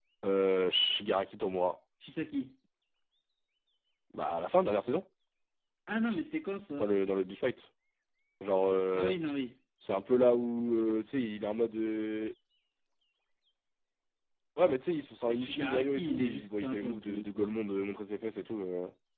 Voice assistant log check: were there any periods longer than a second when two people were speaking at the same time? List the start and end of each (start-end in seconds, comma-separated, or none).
15.3-17.5